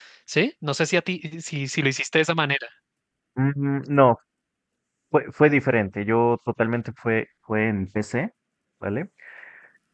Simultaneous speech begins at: none

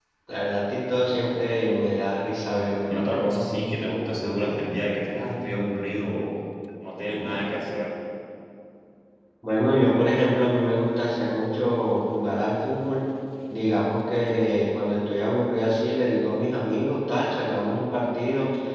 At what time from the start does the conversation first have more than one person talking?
none

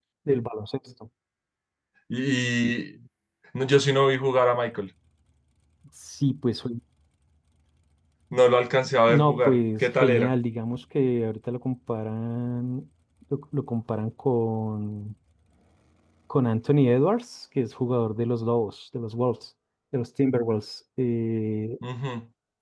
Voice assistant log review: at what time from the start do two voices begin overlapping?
9.1 s

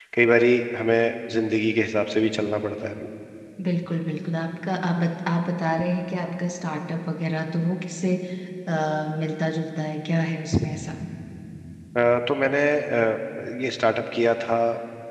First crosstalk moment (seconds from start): none

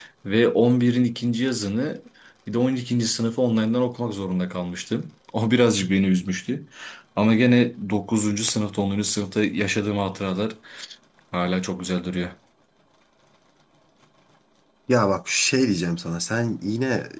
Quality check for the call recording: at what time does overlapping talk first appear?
none

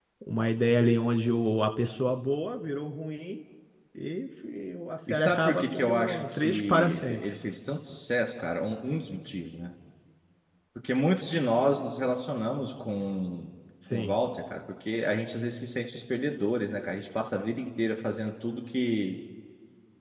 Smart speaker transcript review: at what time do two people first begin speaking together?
5.1 s

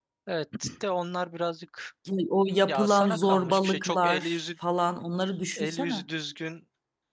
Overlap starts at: 2.7 s

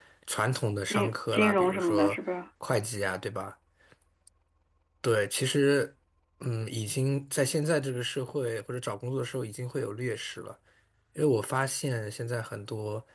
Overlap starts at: 0.9 s

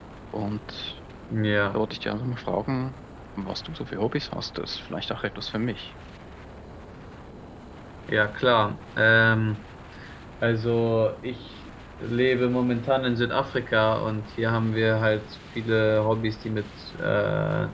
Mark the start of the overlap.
none

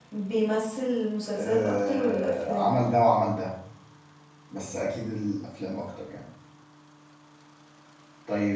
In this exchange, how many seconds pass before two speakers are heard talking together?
1.4 s

